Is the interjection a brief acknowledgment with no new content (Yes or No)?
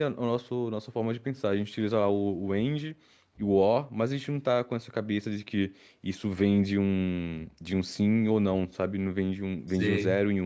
Yes